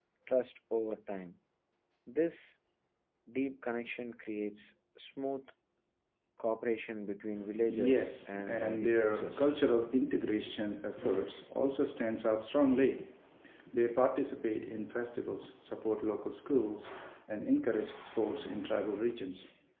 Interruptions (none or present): present